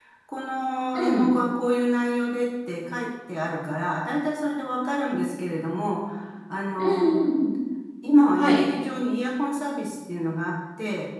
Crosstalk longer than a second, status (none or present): none